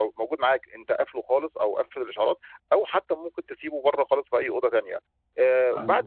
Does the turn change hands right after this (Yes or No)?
No